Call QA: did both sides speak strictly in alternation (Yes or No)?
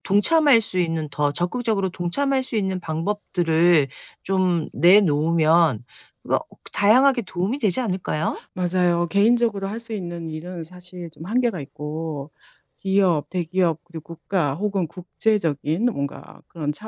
Yes